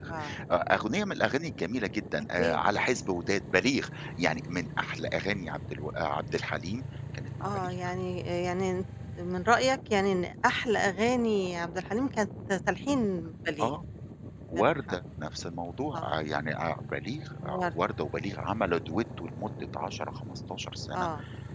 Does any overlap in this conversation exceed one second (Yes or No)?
No